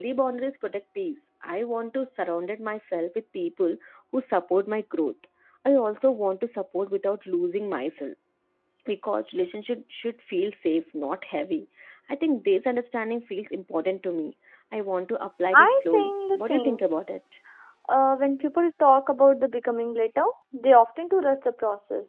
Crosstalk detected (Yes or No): Yes